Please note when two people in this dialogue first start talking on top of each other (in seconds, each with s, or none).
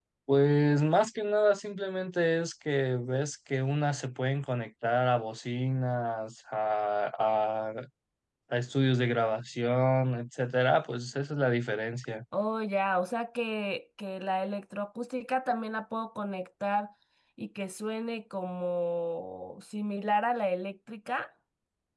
none